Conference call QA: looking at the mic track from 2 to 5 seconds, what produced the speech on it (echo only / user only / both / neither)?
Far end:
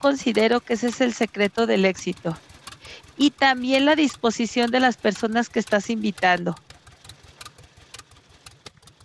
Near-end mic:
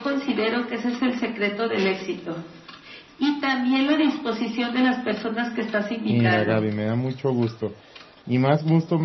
echo only